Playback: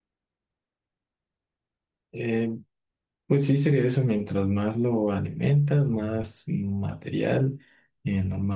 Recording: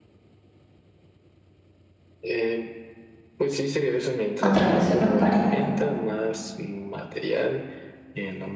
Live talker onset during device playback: 4 s

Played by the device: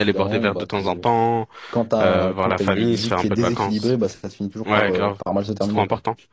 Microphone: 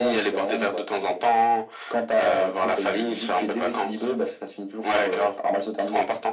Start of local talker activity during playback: none

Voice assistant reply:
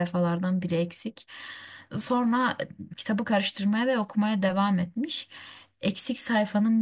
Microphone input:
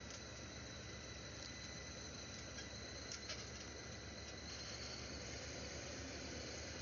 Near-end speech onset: none

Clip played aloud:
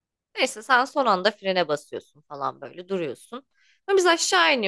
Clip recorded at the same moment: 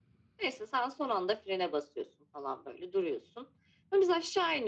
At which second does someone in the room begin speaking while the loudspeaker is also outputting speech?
none

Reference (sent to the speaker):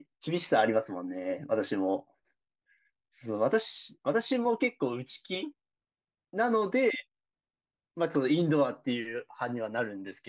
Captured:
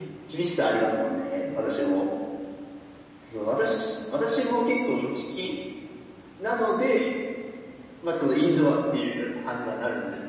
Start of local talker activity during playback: none

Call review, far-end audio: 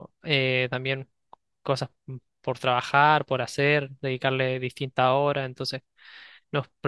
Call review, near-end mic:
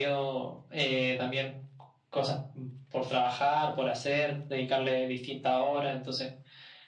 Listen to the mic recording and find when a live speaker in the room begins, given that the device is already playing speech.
none

